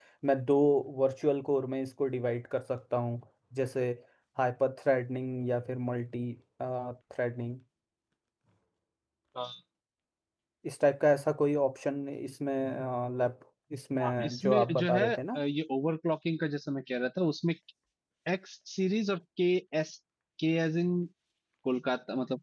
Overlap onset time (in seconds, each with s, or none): 14.0 s